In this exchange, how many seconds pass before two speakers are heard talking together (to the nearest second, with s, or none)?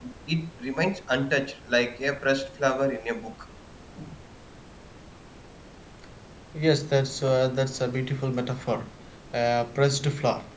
none